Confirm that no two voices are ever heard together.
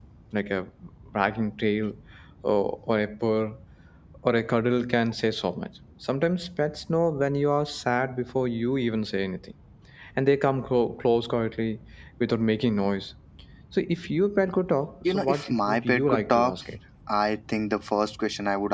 No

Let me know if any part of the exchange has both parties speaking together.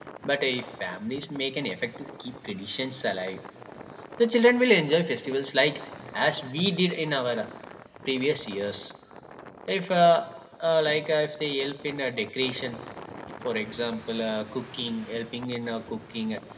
No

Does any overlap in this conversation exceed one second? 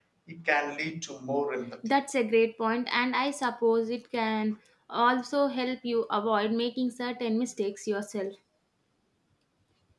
No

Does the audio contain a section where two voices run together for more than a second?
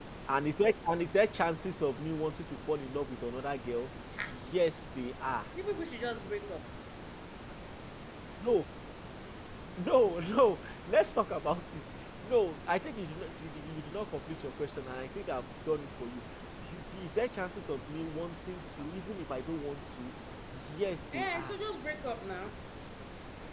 No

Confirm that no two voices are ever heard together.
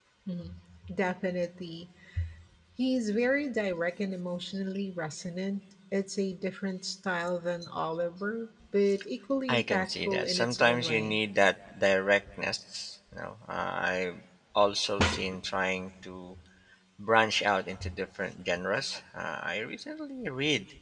No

